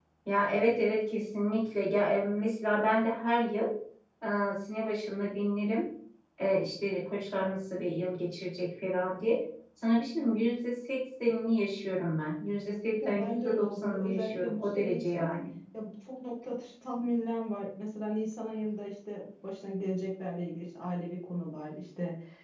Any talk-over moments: Yes, from 12.9 s

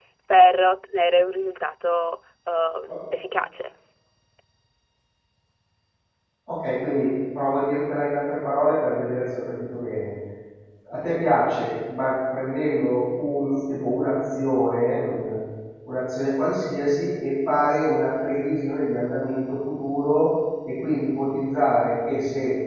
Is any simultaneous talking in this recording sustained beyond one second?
No

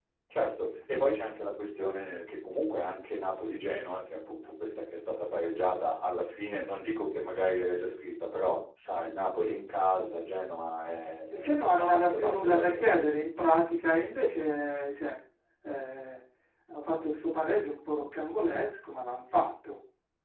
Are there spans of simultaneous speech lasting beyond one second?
Yes, from 11.3 s

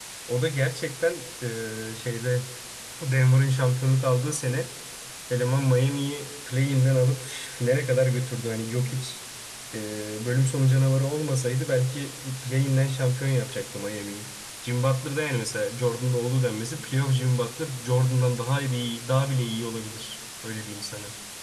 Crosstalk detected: No

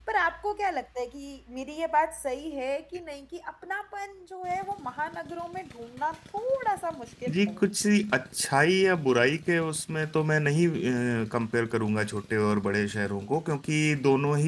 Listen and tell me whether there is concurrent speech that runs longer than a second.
No

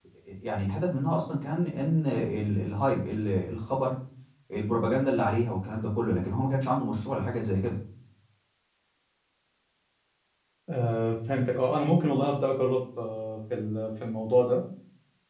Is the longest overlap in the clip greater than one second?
No

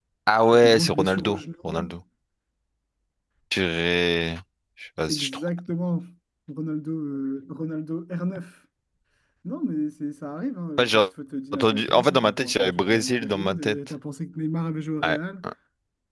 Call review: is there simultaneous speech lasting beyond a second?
Yes, from 0.5 s

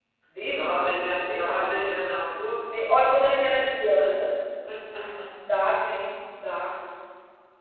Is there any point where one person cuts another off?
Yes, from 0.5 s

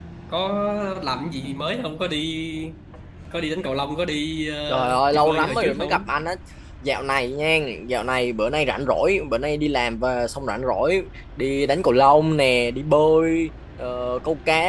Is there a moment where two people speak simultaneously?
Yes, from 4.7 s

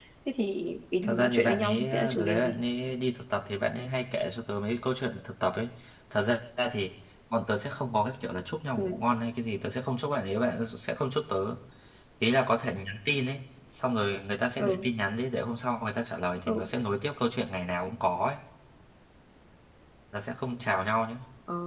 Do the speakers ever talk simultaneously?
Yes, from 1.0 s

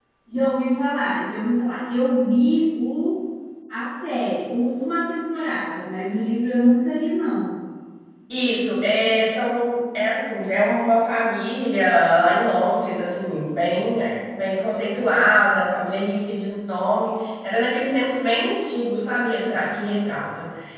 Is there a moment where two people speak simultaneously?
No

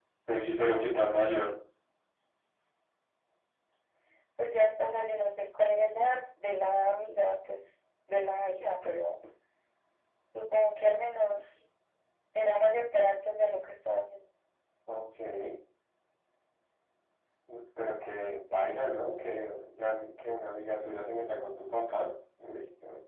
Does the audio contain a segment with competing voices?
No

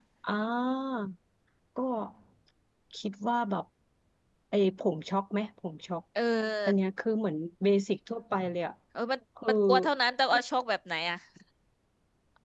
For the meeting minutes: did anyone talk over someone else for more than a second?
No

